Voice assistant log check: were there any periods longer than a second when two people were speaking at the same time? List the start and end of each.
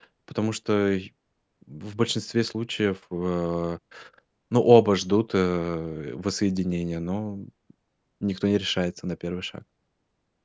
none

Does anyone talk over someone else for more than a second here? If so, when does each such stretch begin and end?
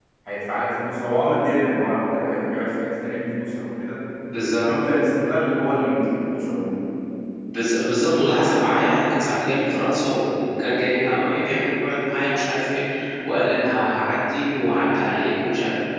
none

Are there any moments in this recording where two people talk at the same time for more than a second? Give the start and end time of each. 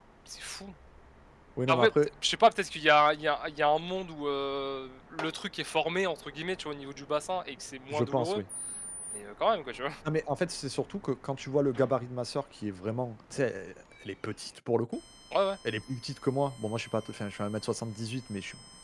none

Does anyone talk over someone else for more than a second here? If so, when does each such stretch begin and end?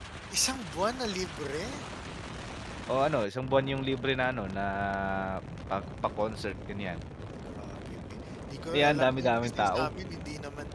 8.7-9.9

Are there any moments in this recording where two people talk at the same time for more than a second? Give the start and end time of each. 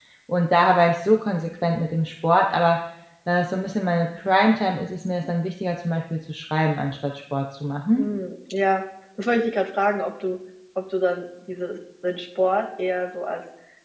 none

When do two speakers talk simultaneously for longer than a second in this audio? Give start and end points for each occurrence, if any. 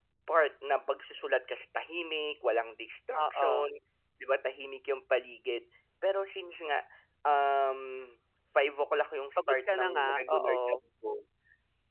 9.4-10.8

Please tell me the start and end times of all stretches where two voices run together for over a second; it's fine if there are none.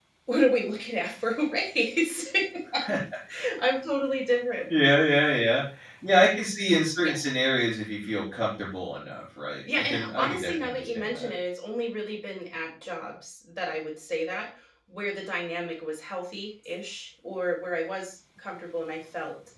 9.7-11.3

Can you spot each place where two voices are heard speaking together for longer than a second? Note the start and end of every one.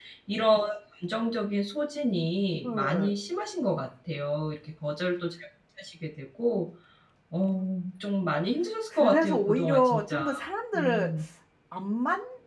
8.9-10.2

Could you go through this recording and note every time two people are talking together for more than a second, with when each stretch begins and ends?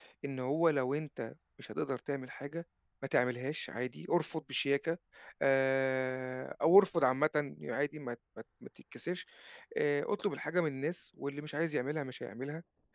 none

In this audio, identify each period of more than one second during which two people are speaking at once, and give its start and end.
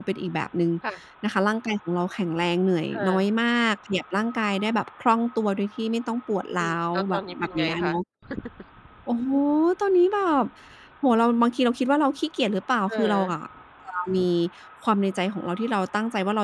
6.6-7.9

